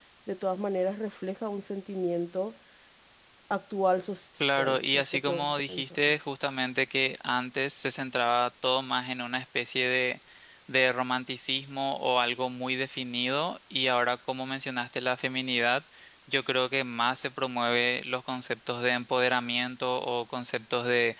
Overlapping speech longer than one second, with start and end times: 4.6-6.0

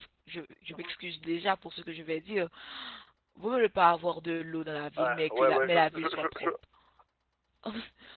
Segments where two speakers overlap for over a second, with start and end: 5.0-6.5

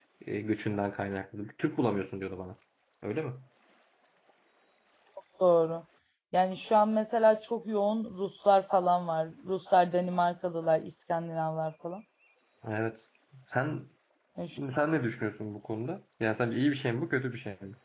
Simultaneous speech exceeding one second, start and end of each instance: none

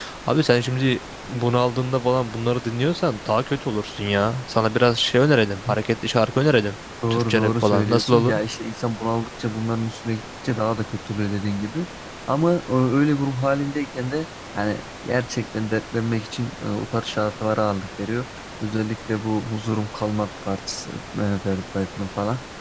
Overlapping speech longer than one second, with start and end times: 7.1-8.3

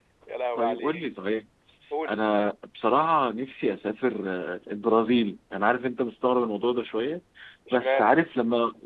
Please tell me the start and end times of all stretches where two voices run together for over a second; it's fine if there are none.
none

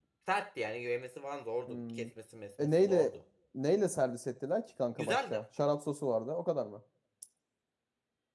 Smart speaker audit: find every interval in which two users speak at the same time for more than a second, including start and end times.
none

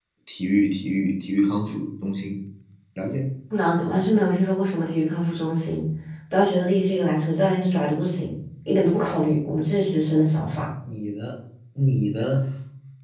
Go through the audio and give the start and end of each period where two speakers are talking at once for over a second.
none

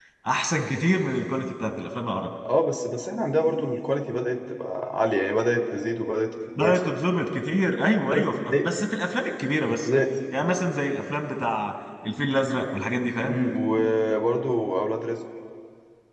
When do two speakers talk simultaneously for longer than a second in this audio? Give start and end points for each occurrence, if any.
none

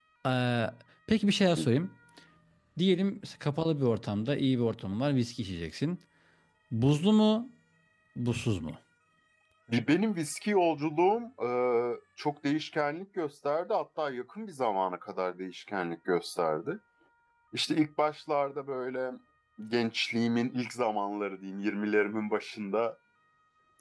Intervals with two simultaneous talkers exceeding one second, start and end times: none

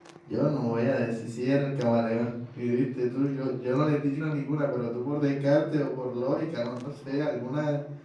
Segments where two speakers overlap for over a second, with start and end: none

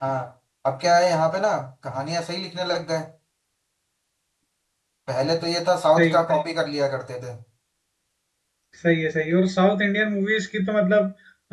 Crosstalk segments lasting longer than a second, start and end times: none

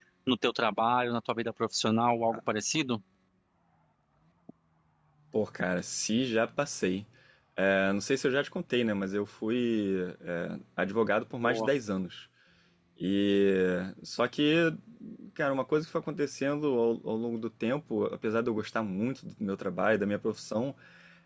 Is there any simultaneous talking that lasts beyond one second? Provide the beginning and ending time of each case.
none

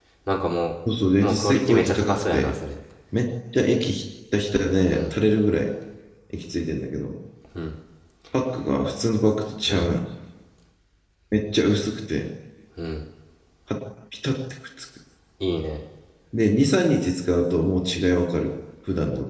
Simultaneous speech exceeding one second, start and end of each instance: 1.2-2.5

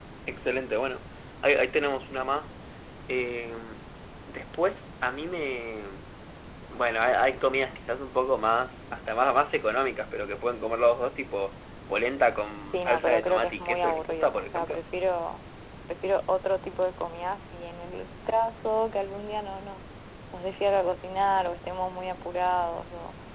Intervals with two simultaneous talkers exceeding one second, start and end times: 12.7-14.8

